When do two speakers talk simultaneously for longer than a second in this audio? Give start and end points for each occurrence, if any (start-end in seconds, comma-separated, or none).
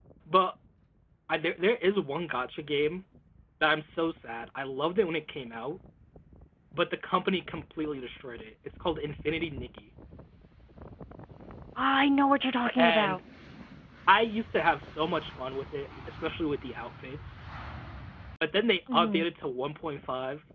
none